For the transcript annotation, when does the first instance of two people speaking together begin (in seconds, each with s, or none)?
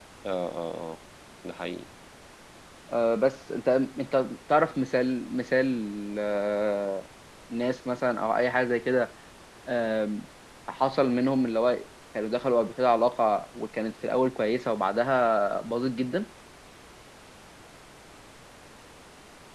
none